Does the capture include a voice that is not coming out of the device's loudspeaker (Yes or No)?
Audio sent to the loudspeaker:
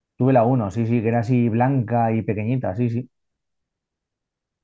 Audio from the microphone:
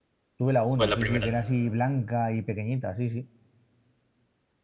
Yes